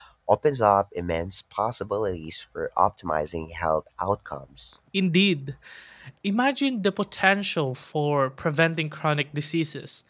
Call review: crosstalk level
none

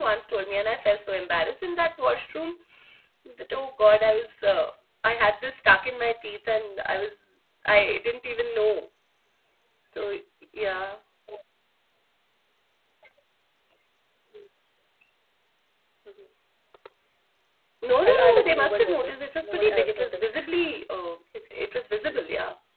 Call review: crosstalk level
present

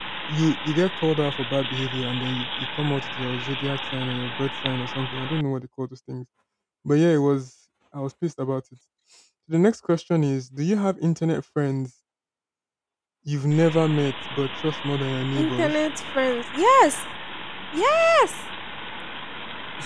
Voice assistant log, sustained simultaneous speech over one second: none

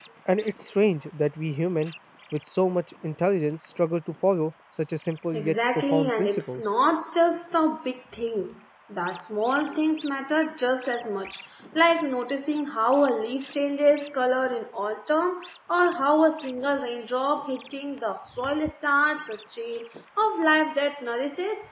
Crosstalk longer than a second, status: present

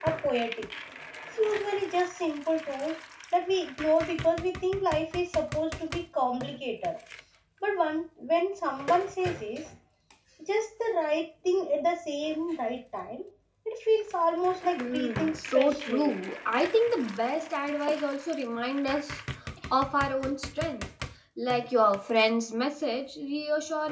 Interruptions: present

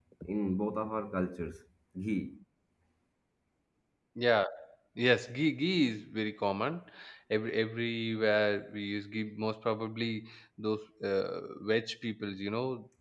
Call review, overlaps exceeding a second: none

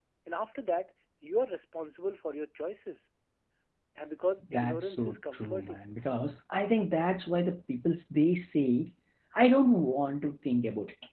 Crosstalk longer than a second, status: present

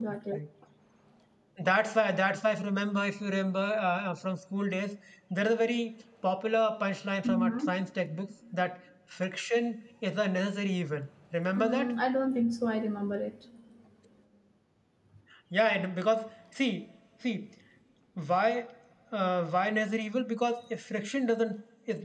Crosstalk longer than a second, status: none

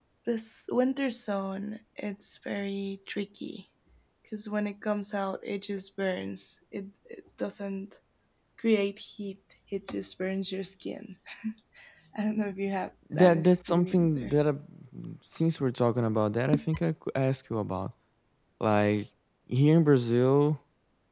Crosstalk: present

